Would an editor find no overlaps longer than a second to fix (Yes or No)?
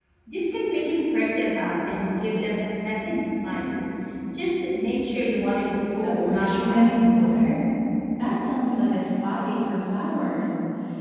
No